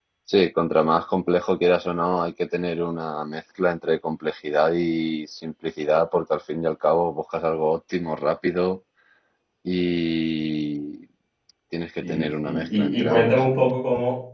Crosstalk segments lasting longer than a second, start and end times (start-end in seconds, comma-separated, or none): 12.0-13.4